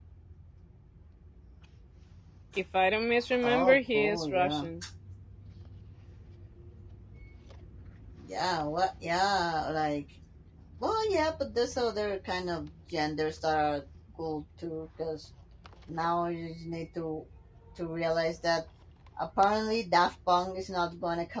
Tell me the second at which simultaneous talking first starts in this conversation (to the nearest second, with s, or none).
3 s